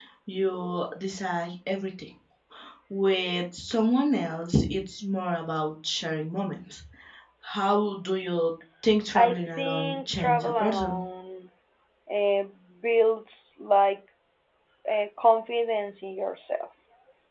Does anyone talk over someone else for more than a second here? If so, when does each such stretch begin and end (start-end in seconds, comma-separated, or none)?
9.2-11.0